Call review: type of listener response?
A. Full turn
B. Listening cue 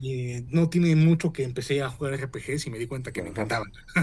A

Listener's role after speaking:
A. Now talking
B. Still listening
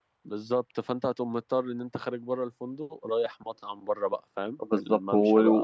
A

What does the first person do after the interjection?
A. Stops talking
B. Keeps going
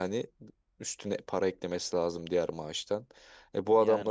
B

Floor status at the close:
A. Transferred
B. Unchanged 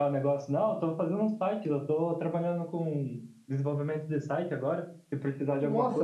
A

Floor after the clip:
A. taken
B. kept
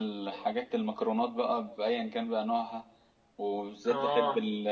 B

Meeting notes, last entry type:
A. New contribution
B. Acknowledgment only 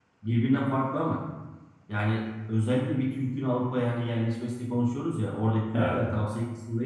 B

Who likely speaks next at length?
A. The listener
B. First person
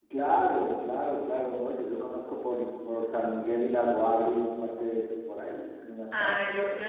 A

